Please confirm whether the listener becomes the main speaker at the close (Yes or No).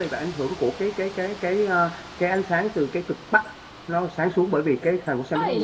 Yes